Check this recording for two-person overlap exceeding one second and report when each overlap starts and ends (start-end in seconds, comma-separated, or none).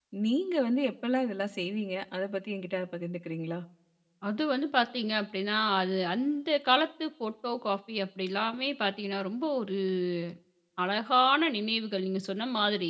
none